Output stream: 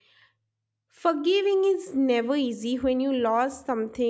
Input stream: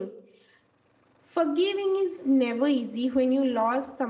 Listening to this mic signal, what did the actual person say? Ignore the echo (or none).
none